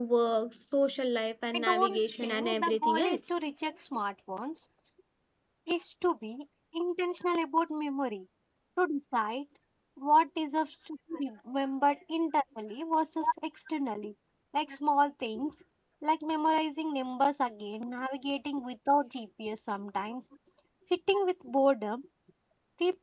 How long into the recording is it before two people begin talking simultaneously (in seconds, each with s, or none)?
1.5 s